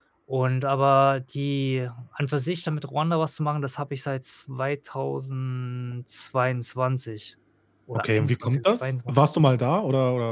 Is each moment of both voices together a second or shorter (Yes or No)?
No